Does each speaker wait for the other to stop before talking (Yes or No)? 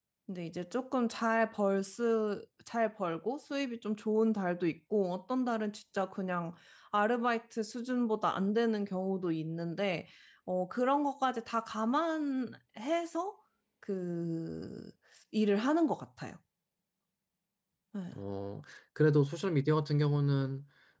Yes